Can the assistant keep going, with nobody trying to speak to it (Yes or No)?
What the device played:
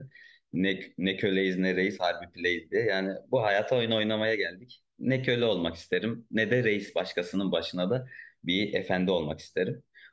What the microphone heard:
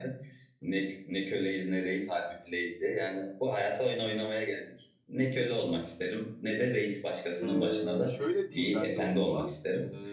No